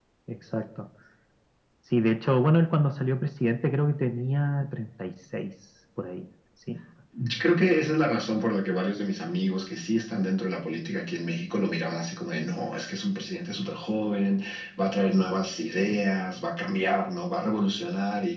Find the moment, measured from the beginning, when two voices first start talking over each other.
none

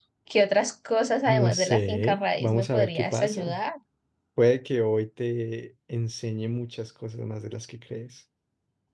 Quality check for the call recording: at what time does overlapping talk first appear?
1 s

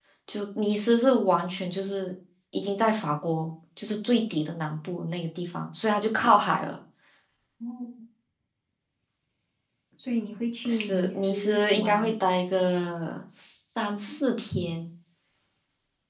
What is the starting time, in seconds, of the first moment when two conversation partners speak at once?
11 s

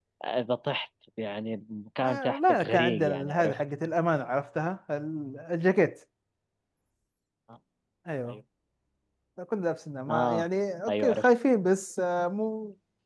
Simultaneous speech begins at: 2 s

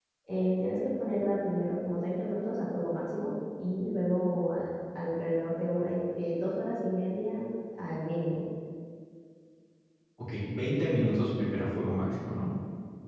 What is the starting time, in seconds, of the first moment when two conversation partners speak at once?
none

